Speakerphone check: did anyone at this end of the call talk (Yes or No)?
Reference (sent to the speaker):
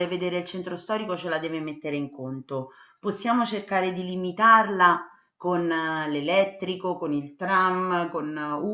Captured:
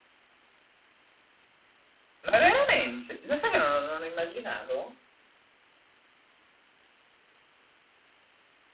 Yes